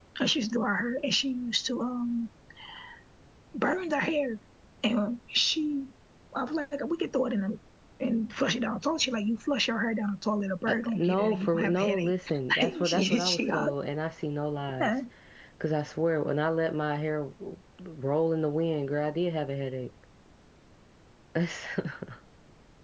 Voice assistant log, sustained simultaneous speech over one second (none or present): present